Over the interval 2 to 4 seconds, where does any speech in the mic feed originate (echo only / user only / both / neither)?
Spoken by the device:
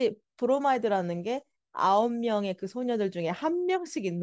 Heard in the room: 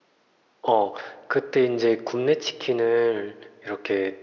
user only